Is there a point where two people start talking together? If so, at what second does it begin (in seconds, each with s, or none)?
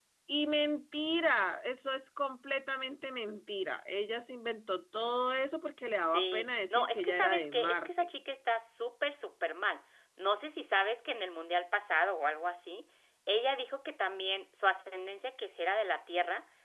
6.0 s